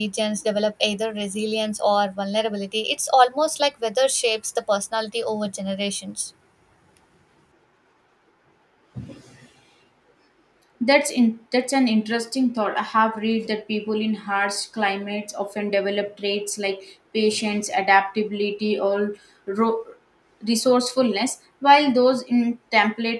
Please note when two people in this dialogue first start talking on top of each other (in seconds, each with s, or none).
none